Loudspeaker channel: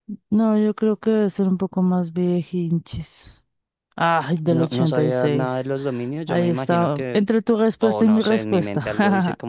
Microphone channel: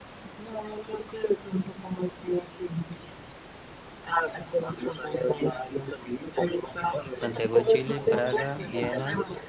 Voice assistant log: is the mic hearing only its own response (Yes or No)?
No